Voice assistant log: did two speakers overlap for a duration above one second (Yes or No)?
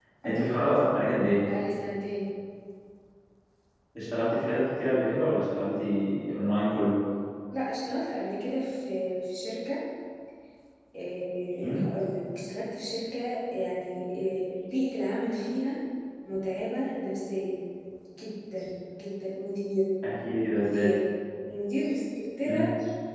No